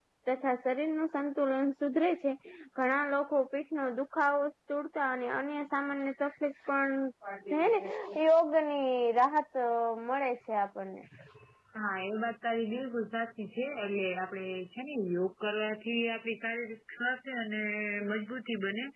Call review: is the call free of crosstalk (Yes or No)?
Yes